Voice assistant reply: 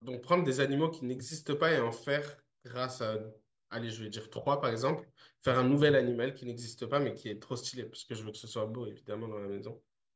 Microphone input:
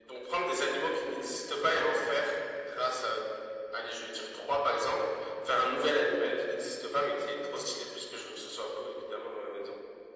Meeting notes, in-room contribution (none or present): none